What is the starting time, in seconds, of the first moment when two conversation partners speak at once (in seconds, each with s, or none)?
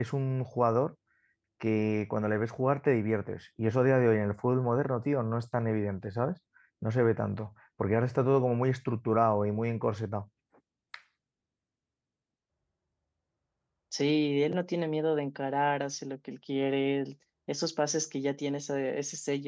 none